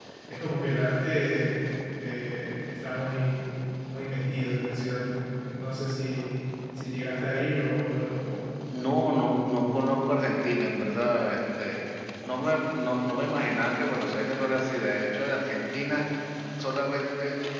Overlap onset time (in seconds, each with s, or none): none